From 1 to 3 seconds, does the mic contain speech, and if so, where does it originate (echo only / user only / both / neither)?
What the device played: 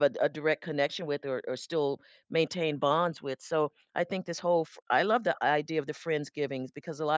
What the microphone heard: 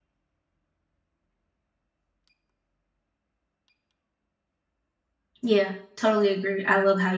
neither